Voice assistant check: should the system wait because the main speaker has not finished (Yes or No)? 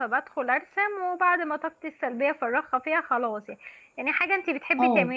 Yes